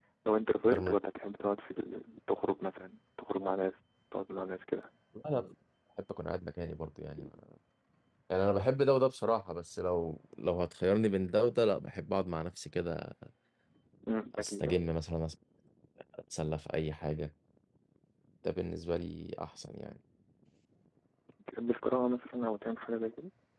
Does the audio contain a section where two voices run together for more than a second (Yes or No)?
No